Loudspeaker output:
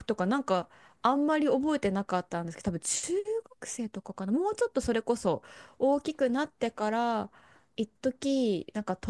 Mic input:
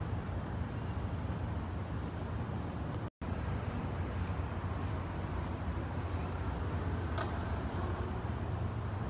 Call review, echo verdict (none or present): none